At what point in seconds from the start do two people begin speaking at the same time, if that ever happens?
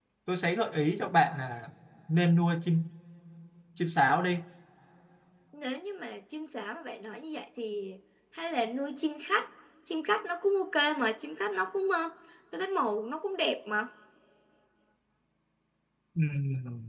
none

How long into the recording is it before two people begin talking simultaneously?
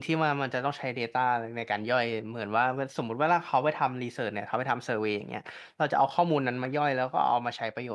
none

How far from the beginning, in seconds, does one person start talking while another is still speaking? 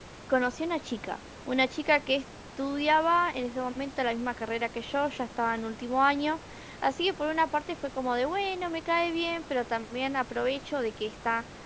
none

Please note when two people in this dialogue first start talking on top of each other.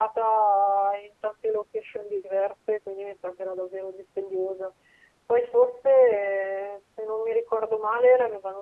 none

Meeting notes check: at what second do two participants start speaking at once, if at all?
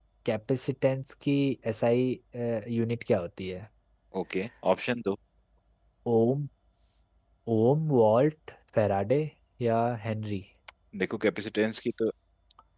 none

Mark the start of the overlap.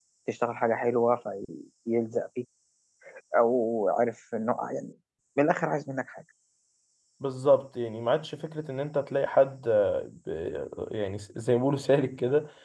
none

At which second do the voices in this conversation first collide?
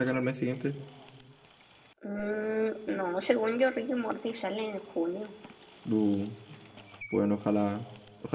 none

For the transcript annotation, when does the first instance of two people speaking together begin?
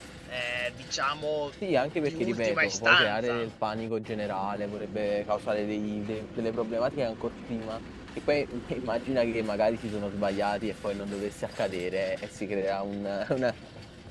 2.0 s

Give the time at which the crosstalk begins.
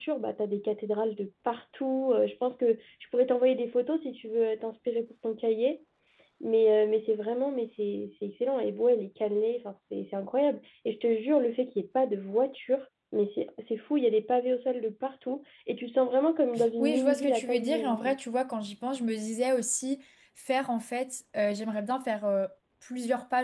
16.6 s

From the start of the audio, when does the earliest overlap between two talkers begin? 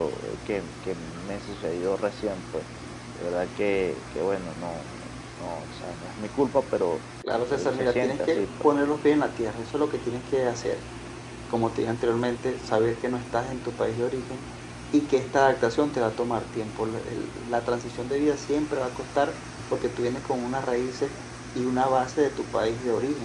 7.5 s

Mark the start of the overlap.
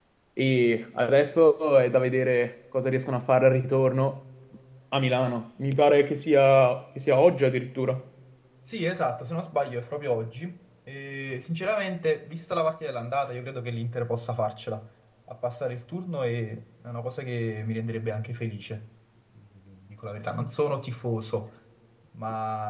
none

